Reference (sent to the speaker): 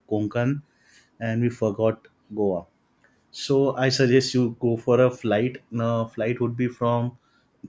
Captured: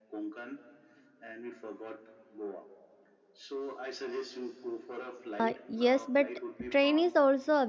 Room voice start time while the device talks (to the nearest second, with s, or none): 5 s